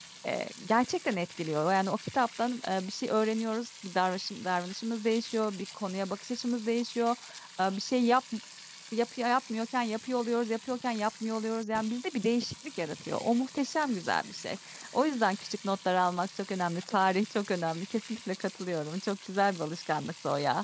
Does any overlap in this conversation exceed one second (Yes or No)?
No